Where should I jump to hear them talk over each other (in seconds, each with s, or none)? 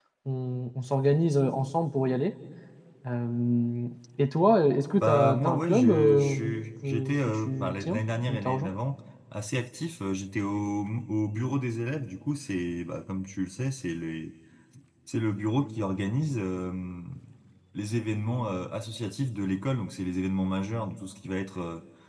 5.0 s